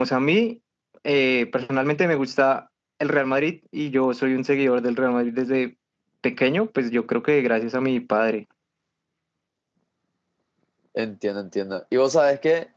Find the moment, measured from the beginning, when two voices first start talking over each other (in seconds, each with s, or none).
none